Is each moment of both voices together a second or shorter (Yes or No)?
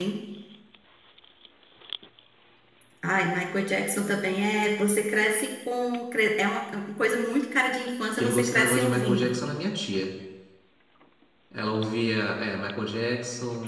No